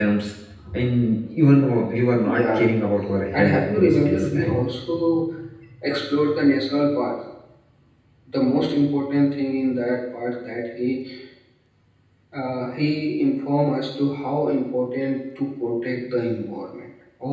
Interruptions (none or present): present